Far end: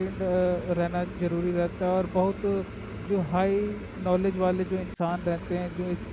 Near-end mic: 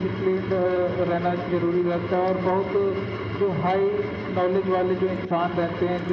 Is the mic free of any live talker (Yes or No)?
Yes